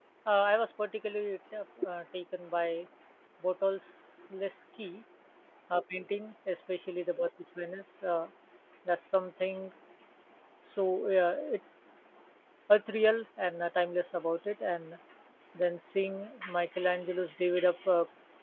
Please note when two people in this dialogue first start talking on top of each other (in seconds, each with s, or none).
none